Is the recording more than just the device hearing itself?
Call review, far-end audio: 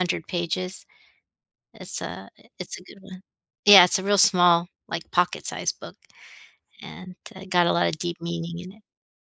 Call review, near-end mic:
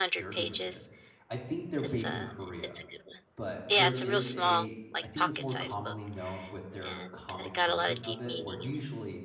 Yes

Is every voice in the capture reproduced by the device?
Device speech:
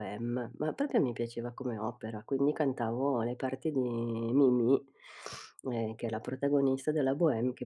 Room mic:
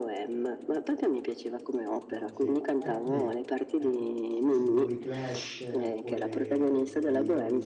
No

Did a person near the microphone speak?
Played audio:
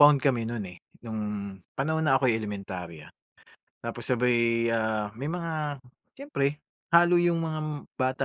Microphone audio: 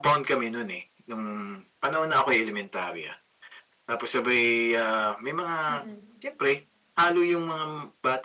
Yes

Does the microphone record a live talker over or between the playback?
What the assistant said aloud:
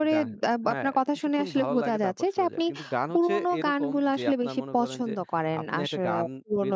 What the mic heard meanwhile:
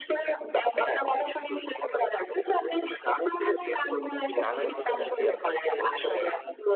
Yes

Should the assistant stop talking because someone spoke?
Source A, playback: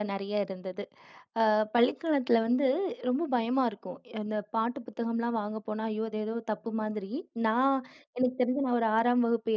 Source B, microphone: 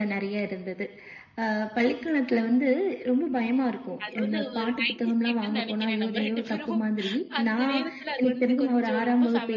Yes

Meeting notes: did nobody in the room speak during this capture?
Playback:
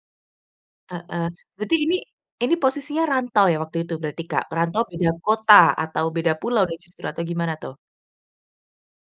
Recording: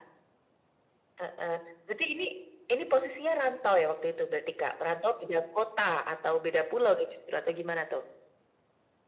Yes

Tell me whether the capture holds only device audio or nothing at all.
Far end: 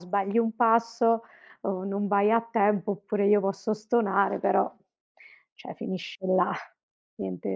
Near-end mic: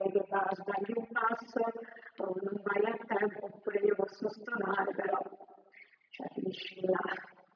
Yes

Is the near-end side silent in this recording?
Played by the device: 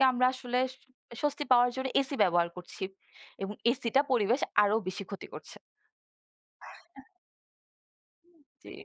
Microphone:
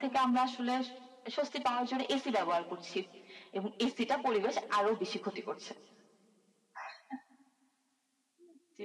Yes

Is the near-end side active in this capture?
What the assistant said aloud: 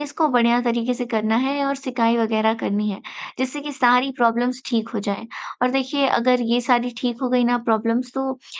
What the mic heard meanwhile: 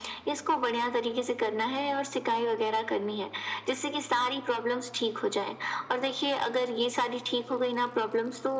No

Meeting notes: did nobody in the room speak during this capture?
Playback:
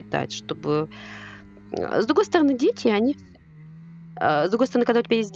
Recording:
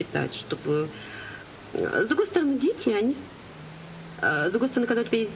Yes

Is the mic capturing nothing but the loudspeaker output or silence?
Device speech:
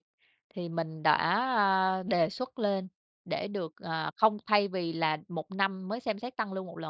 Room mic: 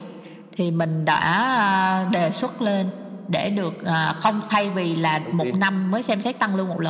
No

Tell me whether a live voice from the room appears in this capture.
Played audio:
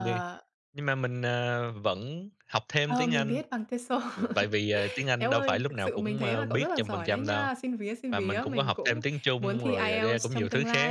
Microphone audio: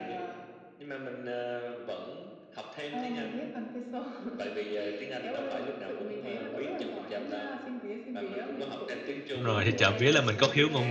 Yes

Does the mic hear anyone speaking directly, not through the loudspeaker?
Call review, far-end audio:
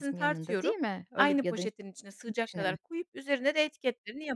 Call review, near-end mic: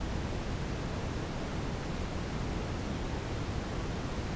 No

